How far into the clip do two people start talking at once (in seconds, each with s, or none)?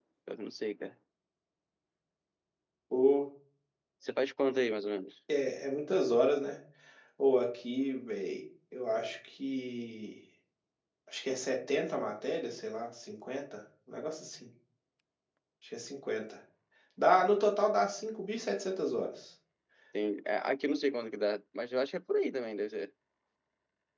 none